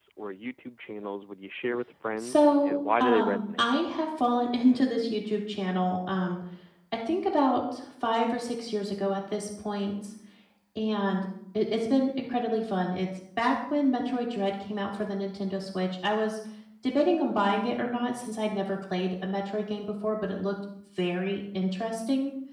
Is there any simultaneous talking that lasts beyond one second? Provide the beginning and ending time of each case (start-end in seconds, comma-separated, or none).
2.2-3.6